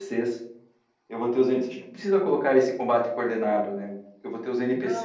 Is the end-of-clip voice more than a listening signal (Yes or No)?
Yes